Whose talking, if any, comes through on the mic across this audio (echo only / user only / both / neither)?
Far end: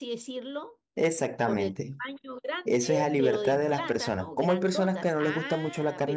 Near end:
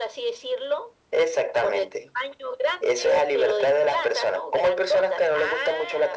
echo only